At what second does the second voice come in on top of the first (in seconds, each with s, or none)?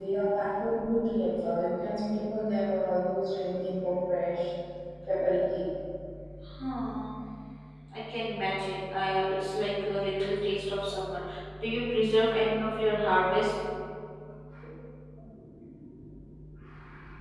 none